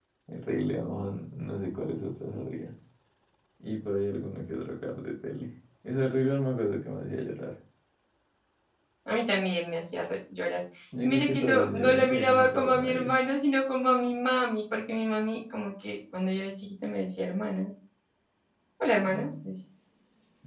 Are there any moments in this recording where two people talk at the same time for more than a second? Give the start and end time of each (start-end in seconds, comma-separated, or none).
11.0-13.1